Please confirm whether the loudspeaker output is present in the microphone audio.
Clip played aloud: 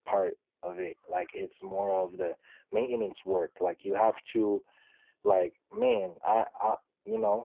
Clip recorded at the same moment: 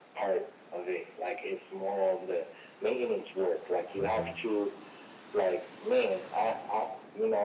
Yes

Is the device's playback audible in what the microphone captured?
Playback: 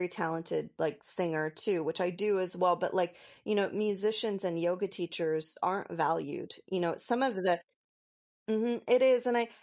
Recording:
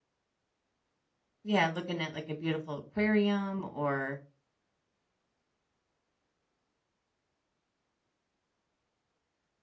No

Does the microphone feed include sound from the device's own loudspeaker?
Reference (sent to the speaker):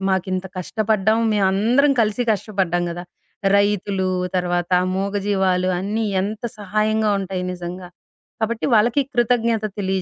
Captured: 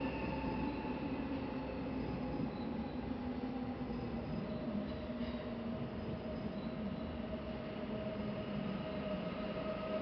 No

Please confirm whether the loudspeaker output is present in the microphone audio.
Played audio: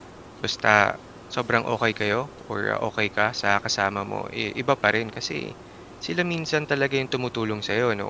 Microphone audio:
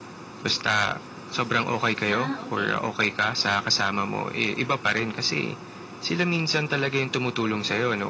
Yes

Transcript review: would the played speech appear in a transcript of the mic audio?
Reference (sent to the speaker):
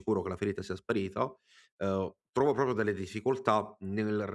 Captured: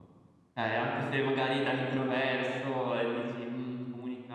No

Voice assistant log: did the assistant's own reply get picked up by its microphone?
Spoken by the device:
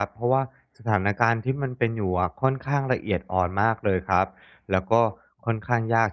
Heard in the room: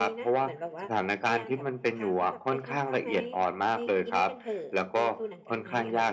Yes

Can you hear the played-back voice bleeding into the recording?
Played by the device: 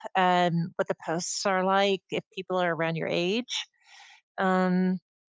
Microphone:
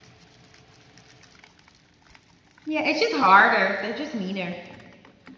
No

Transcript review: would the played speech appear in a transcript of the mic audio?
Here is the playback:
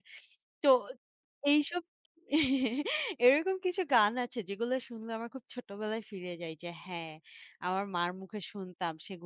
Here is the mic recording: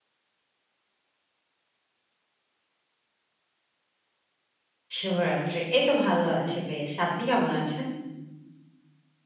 No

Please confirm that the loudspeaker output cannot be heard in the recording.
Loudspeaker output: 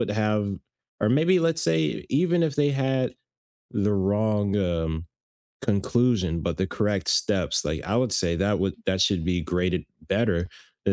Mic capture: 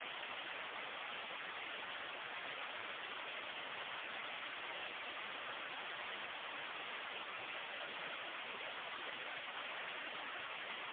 Yes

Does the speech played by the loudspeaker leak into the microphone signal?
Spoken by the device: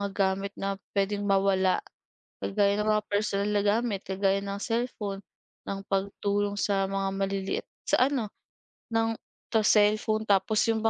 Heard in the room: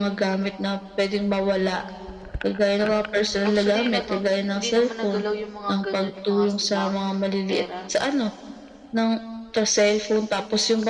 Yes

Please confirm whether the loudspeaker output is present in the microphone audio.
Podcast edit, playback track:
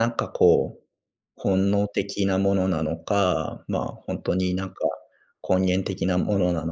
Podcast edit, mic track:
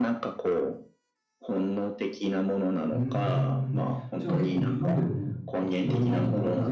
Yes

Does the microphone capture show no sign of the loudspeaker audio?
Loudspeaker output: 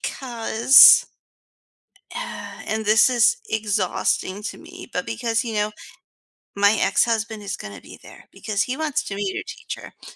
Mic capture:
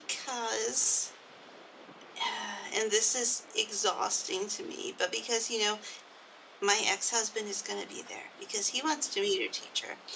No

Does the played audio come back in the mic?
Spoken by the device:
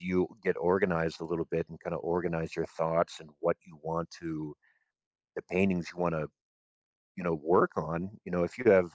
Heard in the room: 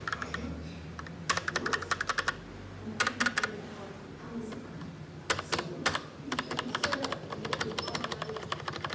No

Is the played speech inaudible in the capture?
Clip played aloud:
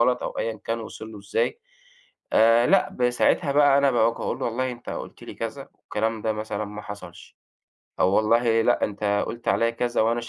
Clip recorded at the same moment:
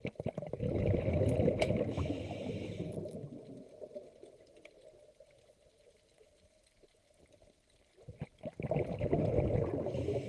Yes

